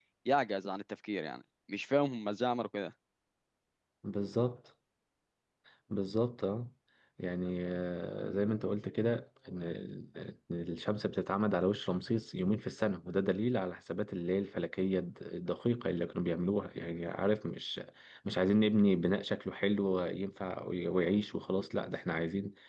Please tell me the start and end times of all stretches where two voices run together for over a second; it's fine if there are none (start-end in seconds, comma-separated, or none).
none